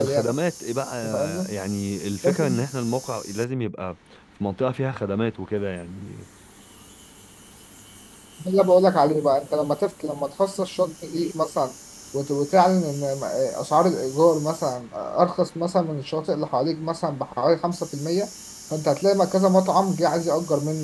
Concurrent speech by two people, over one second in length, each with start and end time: none

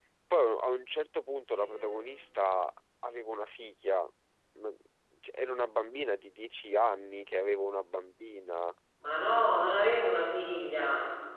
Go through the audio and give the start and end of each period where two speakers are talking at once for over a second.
none

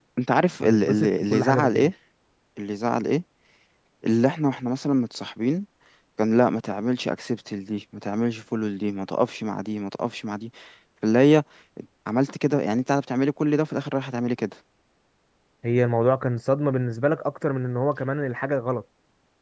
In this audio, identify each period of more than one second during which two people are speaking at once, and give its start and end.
0.6-1.9

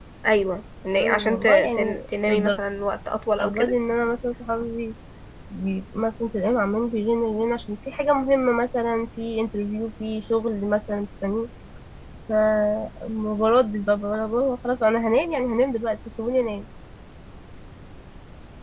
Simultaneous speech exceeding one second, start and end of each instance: 1.0-2.5

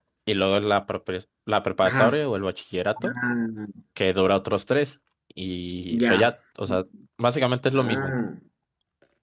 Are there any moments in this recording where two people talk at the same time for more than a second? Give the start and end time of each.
none

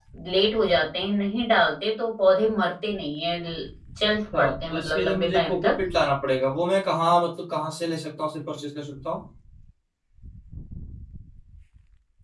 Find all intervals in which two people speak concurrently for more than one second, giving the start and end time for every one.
4.4-5.8

